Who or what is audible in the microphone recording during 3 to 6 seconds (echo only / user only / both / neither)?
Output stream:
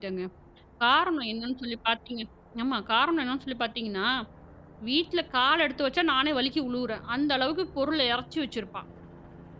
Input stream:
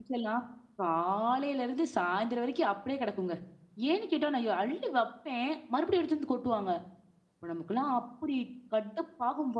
user only